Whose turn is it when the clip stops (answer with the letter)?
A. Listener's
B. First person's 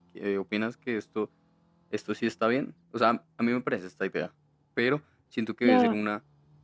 B